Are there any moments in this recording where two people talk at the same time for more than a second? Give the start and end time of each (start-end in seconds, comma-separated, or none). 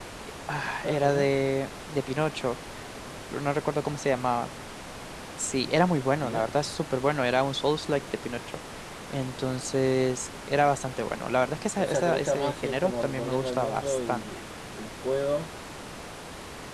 11.8-14.3